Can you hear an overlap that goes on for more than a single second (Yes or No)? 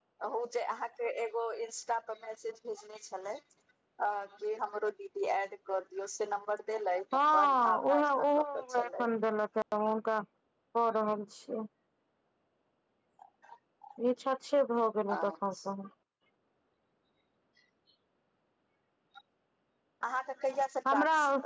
Yes